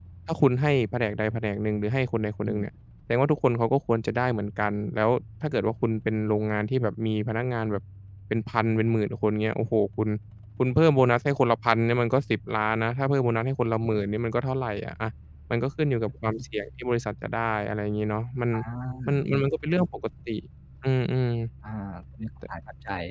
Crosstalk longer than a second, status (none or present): none